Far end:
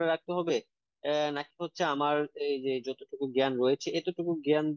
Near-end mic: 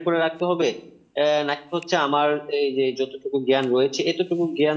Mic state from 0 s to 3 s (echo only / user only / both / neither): echo only